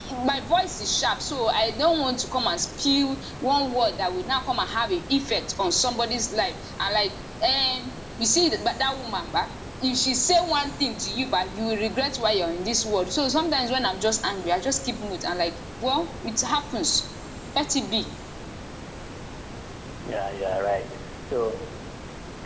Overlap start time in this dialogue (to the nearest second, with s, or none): none